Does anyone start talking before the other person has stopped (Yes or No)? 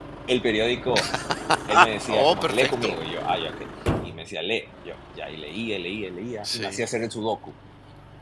Yes